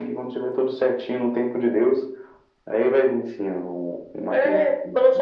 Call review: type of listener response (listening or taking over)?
taking over